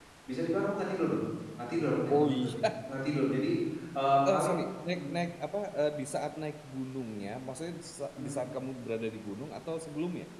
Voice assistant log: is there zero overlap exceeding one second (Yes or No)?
Yes